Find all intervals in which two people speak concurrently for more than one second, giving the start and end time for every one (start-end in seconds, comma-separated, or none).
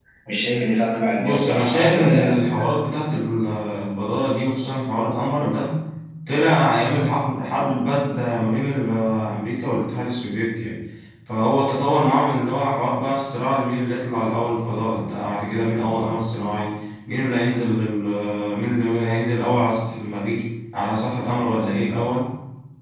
1.2-2.4